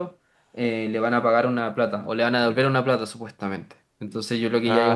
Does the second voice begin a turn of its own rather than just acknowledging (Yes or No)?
No